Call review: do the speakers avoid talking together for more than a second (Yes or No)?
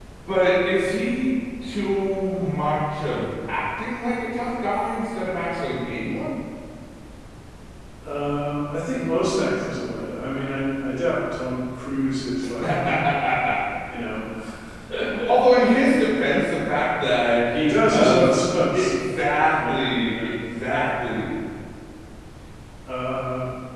No